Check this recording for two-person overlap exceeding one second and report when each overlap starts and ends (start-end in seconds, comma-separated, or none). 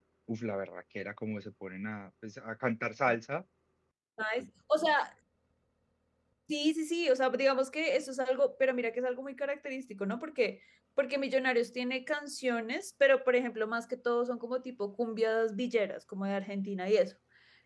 none